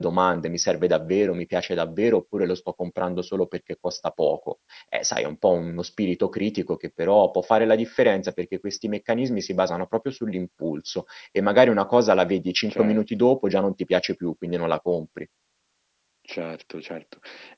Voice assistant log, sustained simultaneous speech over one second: none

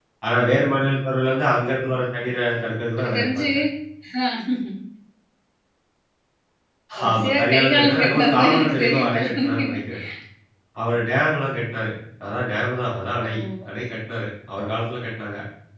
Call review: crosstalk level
present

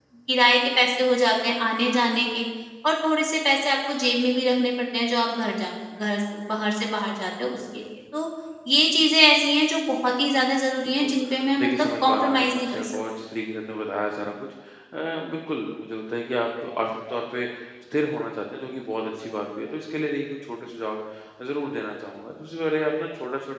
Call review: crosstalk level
present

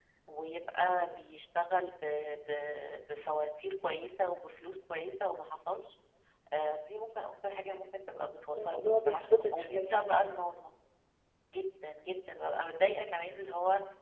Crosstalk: present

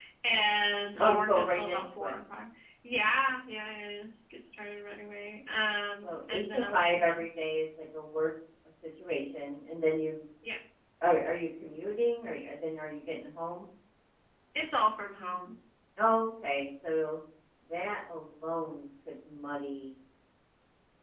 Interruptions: present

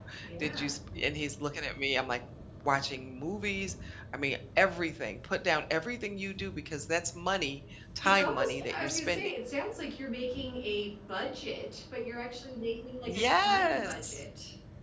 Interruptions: present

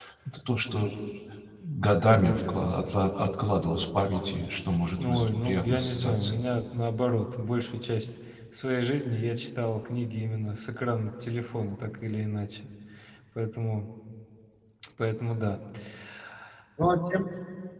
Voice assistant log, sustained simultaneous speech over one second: present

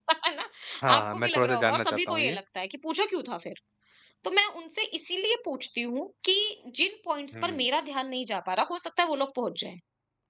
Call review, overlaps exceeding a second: present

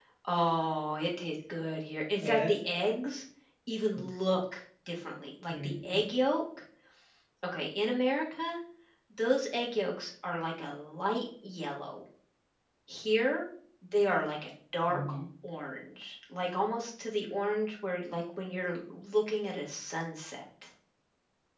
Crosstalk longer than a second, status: none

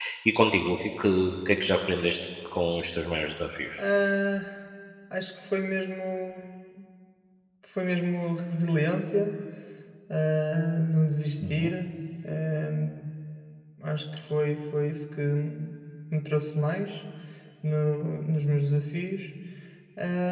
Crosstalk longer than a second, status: none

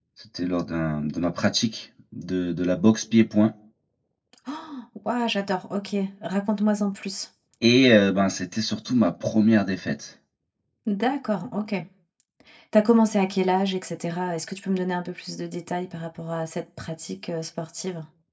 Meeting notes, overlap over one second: none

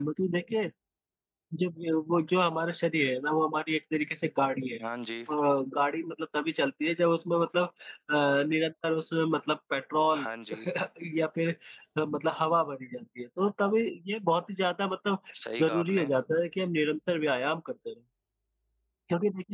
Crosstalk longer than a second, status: none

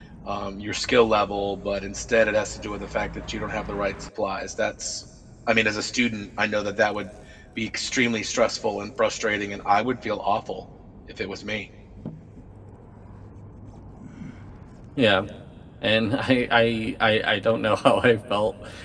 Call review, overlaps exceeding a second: none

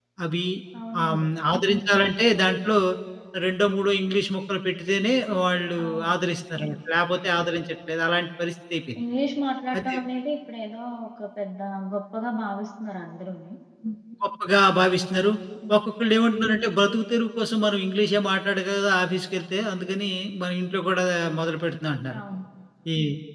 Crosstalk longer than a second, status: none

